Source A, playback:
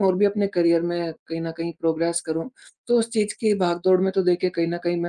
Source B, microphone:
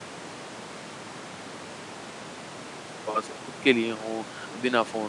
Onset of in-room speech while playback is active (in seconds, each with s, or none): 3.1 s